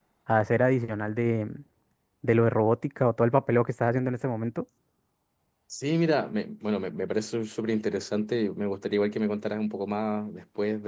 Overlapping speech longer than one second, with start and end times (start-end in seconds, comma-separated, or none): none